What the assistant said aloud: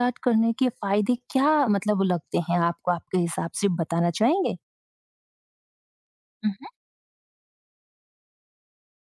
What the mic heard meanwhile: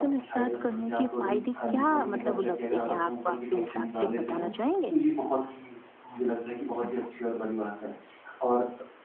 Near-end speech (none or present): present